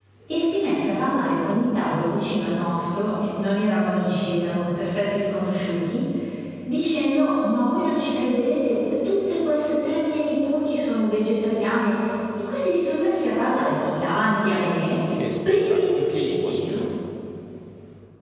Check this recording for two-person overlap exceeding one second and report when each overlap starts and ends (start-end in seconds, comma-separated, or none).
15.5-16.8